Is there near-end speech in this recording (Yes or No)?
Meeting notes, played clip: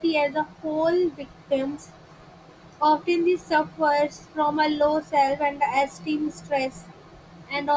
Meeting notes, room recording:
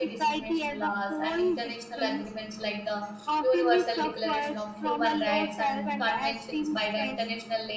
Yes